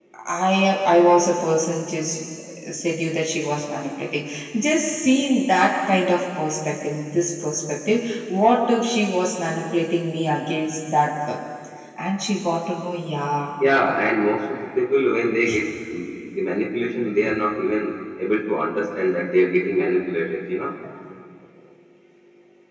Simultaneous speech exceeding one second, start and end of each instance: none

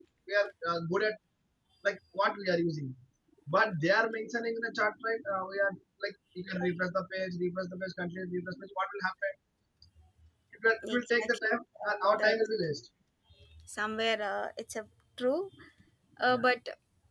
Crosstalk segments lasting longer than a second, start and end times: 10.8-12.4

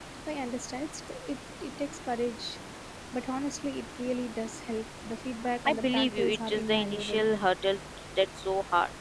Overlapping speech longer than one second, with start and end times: 5.7-7.2

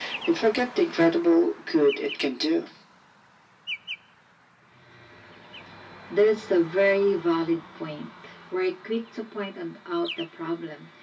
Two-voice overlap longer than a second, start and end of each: none

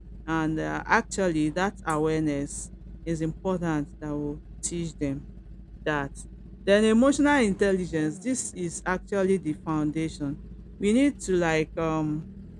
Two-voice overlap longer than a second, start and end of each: none

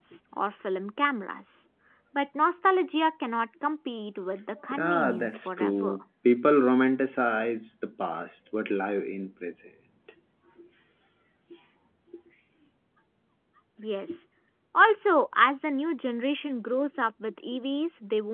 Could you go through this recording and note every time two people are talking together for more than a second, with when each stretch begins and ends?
4.7-6.0

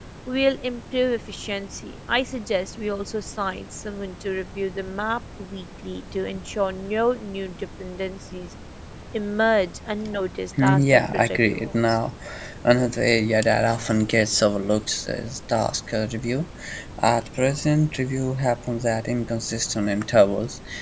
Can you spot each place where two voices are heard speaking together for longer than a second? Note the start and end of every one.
10.6-12.0

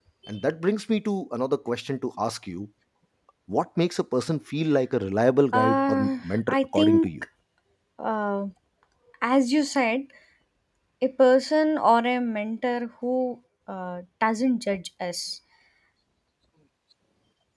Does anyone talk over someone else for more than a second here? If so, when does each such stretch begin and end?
5.5-7.1

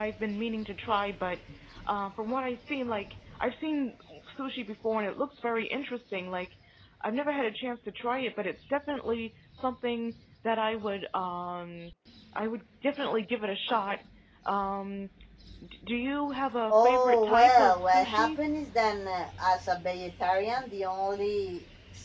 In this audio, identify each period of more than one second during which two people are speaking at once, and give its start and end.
16.7-18.4

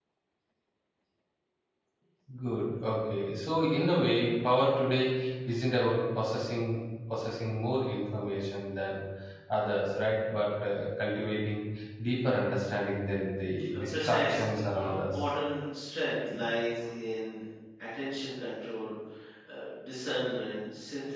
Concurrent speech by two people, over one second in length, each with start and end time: 13.8-15.1

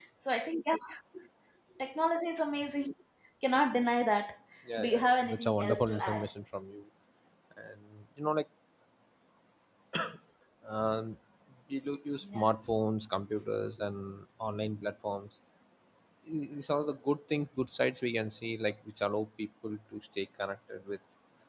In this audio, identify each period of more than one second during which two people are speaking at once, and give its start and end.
4.8-6.2

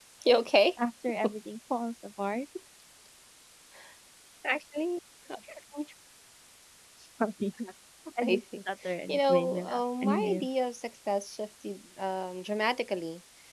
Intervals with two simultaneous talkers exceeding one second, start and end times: 9.1-10.5

